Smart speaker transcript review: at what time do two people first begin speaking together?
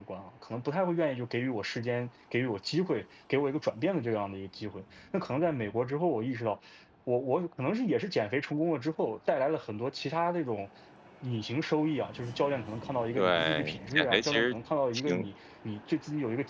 13 s

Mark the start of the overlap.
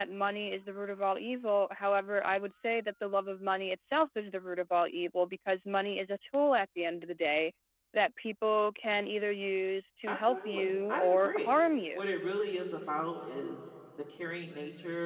10 s

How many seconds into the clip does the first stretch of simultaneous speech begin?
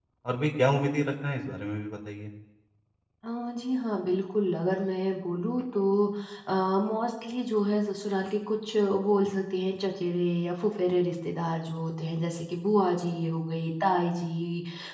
none

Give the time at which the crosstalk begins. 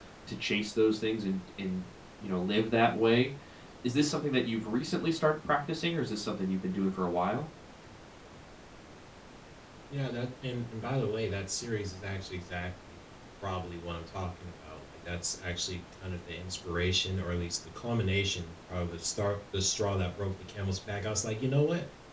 none

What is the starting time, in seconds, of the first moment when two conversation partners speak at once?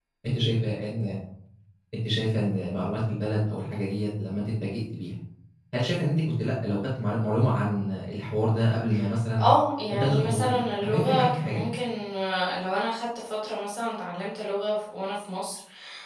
10 s

